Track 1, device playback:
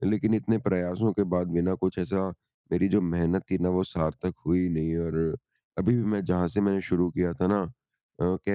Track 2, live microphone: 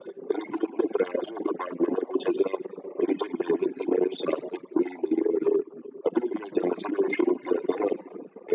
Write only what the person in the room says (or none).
none